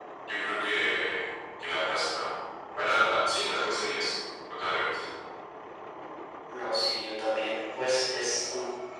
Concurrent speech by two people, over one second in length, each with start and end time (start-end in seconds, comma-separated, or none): none